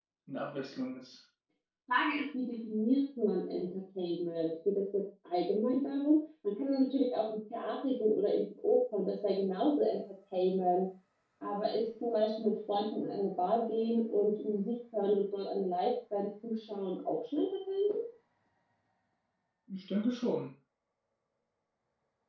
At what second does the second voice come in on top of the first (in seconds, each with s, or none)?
none